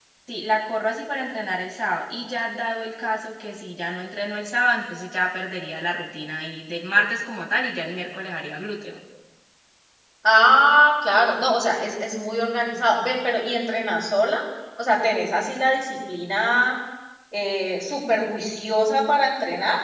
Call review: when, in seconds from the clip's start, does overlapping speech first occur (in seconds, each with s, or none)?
none